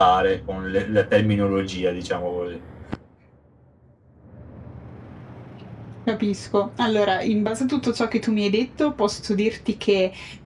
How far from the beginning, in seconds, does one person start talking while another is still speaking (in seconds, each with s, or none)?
none